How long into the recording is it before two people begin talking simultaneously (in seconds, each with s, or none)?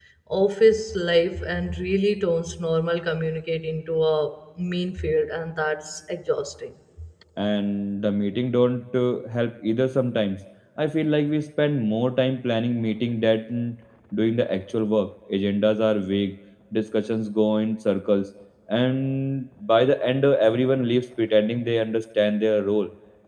none